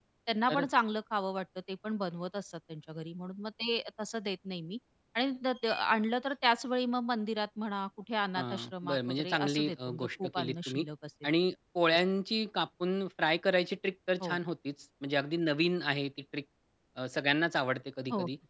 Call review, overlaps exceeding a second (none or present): present